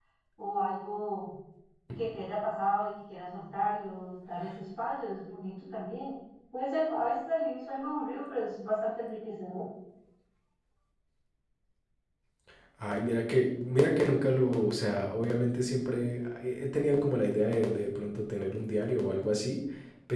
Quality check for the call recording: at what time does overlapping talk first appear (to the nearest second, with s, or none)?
none